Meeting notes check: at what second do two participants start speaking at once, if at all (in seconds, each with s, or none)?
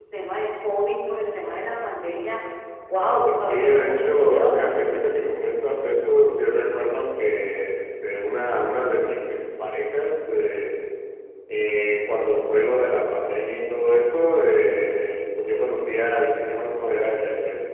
3.5 s